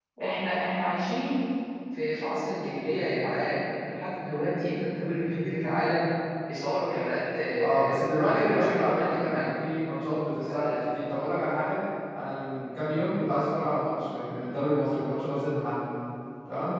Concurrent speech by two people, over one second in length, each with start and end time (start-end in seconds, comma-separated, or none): 7.6-9.5